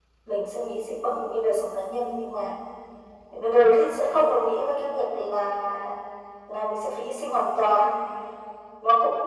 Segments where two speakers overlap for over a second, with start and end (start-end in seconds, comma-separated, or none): none